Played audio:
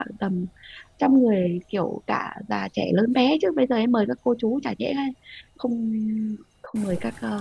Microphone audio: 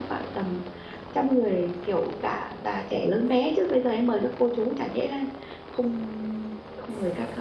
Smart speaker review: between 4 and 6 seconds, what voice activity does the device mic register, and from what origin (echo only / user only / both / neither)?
echo only